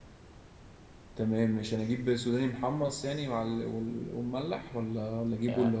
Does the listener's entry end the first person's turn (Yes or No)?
Yes